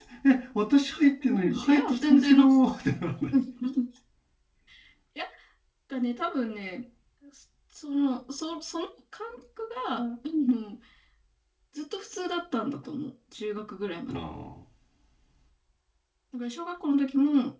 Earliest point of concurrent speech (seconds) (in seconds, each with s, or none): 1.3 s